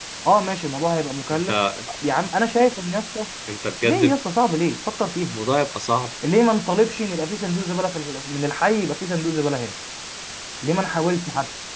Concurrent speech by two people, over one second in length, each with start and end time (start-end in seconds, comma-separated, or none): none